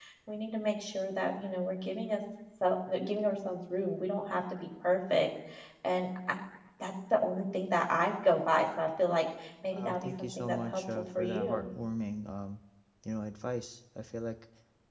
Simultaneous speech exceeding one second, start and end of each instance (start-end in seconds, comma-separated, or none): 9.7-11.7